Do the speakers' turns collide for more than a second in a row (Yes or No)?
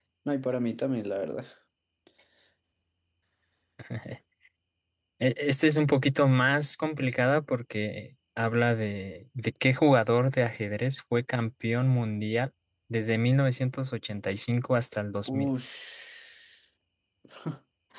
No